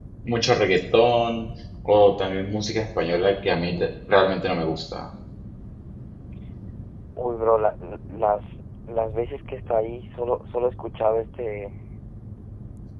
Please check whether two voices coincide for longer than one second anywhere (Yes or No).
No